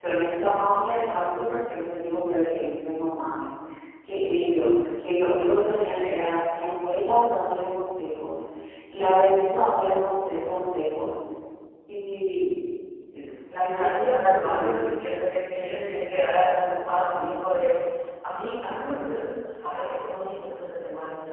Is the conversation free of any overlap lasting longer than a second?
No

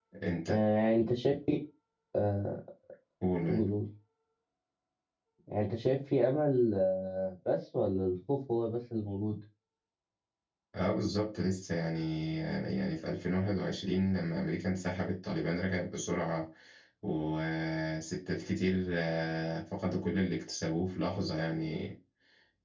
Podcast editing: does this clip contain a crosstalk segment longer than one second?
No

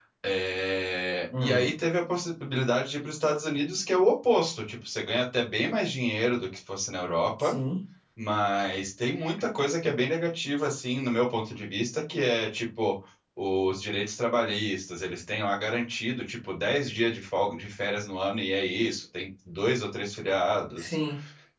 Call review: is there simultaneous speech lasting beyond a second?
No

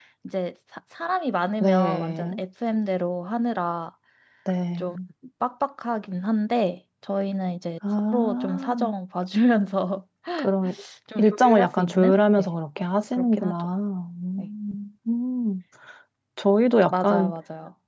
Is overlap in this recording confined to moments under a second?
No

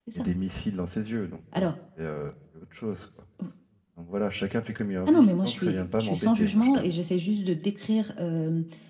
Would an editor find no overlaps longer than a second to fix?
No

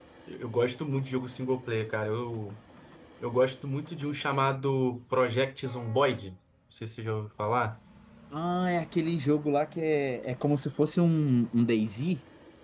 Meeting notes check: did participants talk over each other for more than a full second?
No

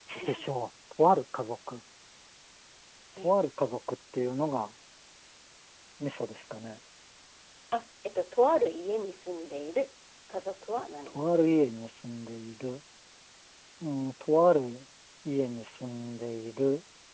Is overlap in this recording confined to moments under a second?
Yes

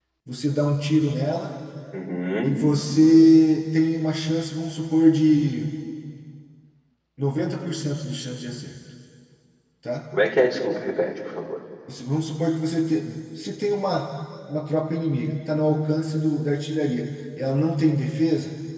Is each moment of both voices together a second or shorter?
Yes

